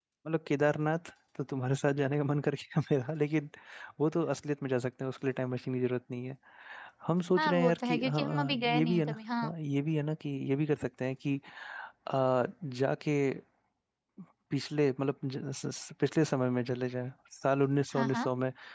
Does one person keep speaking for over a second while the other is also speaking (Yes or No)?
Yes